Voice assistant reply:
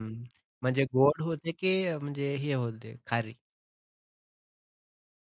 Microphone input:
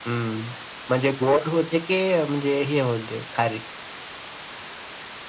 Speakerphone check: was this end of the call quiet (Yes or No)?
Yes